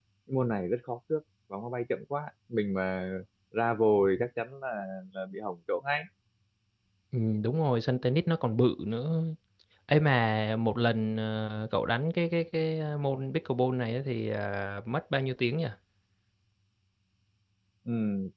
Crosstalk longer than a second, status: none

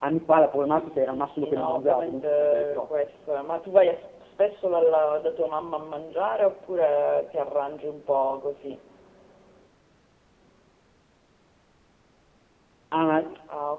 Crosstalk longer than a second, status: present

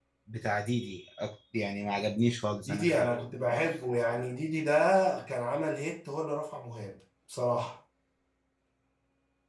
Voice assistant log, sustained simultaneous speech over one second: none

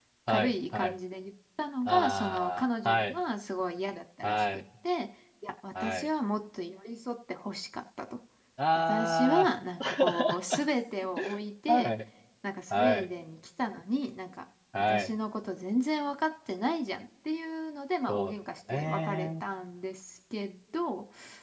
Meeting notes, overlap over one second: present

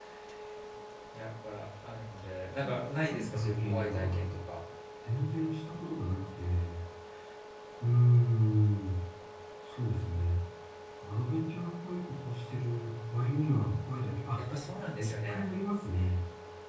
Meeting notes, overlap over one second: present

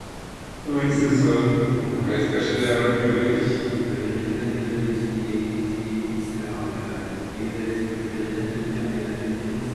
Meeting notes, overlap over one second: present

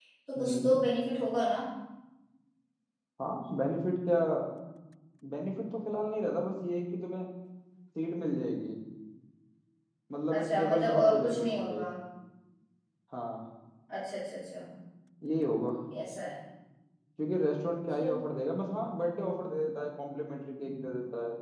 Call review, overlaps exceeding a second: present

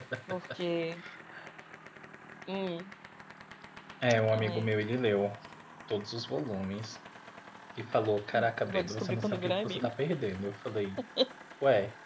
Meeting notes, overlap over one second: present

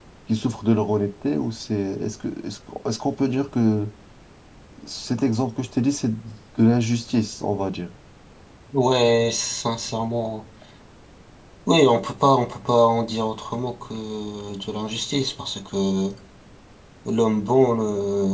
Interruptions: none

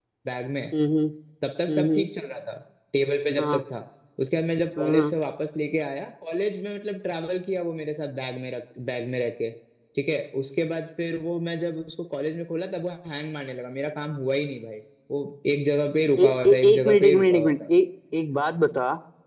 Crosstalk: present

